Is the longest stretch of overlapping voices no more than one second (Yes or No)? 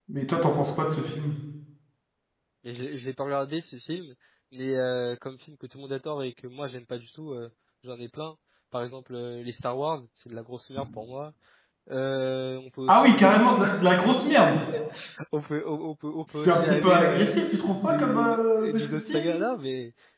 No